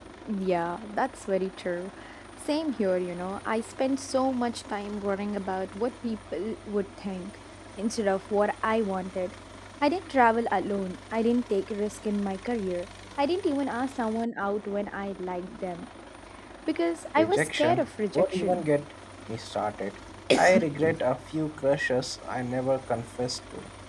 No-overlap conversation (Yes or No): No